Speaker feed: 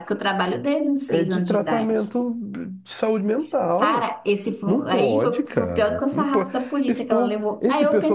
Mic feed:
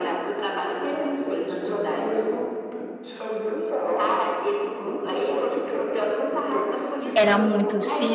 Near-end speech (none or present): present